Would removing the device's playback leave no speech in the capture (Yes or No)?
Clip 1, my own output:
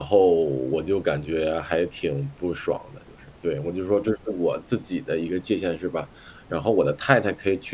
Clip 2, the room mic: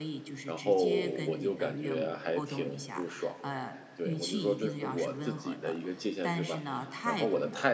No